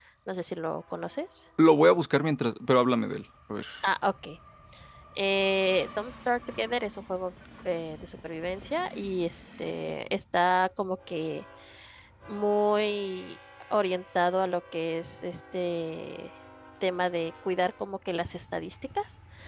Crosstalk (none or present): none